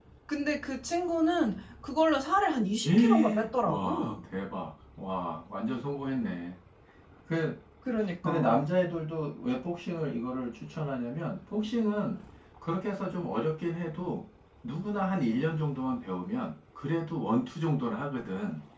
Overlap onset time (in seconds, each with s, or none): 2.9 s